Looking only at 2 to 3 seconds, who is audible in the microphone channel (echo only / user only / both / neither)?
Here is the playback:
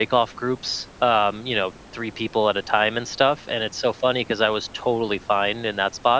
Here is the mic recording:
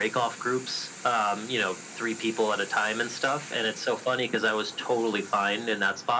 echo only